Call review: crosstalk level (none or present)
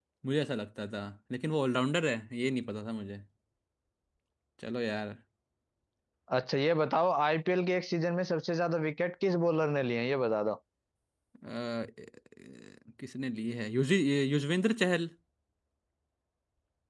none